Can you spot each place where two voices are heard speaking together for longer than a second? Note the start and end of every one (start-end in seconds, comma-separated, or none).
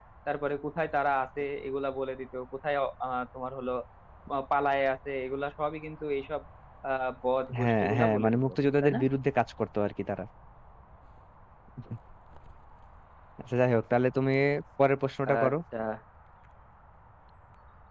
7.6-9.0